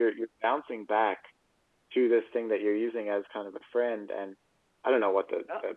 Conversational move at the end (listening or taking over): listening